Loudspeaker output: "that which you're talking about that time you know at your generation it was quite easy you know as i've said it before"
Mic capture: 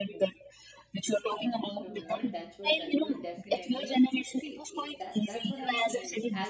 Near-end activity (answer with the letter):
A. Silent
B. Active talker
B